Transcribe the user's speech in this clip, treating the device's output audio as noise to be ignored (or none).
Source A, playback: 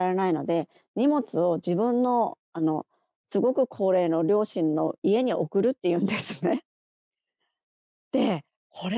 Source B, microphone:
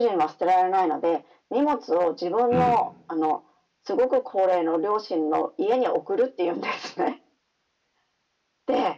ん、うん。